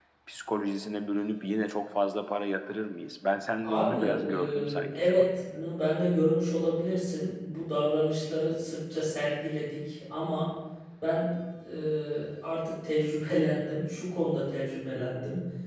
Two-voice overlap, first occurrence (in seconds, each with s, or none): 3.6 s